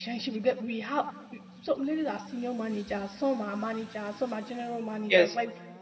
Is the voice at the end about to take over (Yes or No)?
No